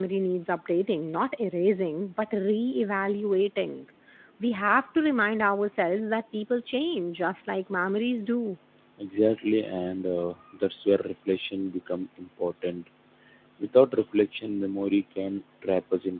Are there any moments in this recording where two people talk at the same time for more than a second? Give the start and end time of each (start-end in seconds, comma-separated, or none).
none